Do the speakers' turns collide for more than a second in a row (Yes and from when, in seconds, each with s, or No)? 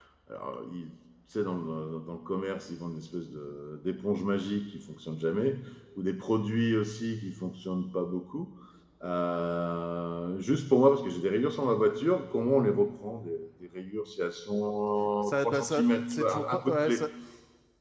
Yes, from 15.2 s